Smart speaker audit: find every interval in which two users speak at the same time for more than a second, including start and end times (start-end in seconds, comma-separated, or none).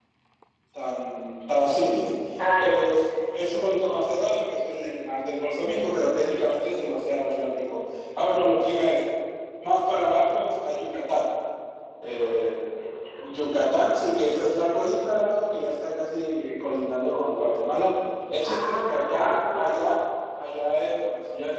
18.4-19.6